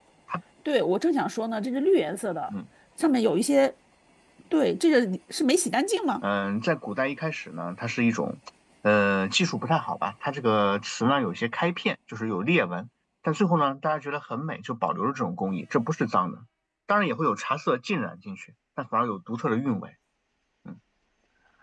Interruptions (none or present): none